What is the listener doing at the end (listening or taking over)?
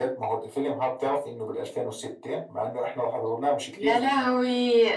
taking over